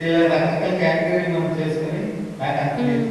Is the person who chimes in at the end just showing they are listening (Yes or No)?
Yes